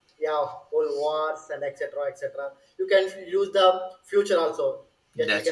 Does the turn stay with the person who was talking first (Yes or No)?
Yes